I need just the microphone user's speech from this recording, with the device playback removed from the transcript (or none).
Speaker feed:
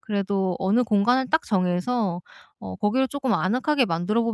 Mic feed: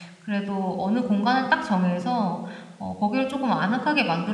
none